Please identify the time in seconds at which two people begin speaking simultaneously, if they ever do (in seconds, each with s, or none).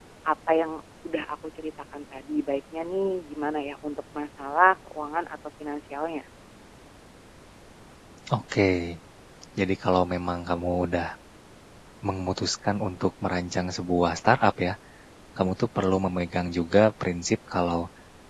none